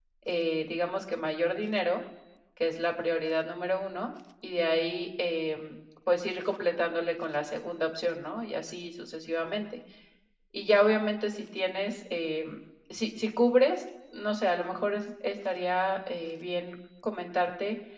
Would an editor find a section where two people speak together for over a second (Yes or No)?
No